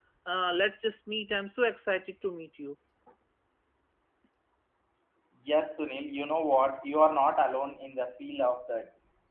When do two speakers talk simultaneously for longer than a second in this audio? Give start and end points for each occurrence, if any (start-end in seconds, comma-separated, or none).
none